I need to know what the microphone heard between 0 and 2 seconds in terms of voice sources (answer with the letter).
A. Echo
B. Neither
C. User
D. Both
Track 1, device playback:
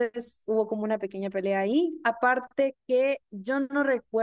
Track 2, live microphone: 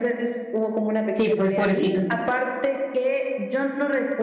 D